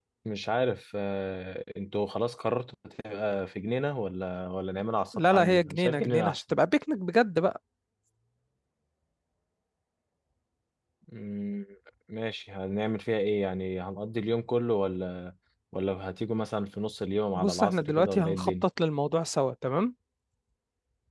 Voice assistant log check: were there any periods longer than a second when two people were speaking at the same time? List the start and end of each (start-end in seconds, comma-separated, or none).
5.1-6.4, 17.4-18.7